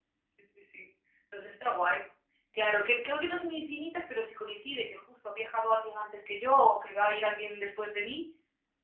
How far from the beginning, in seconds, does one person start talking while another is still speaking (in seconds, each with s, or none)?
none